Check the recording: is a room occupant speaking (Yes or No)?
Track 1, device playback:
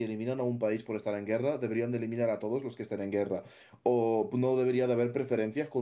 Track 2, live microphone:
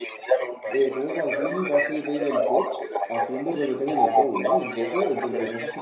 Yes